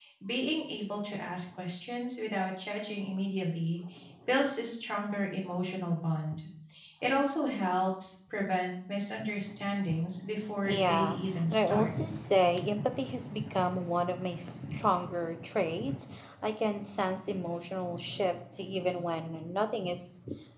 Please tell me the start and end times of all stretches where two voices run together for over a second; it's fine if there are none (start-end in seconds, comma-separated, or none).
10.7-11.9